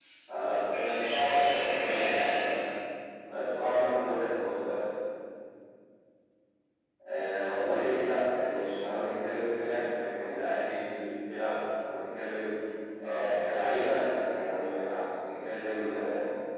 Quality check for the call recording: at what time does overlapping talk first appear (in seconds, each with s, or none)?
1.0 s